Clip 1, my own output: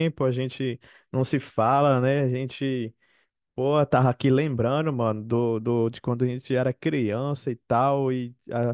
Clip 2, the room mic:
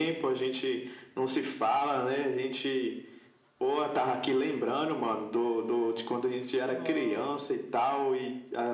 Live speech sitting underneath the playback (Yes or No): Yes